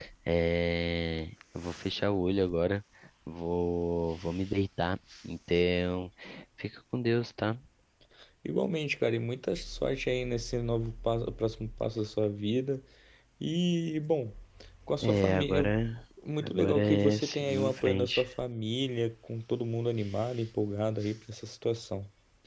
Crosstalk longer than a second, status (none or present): present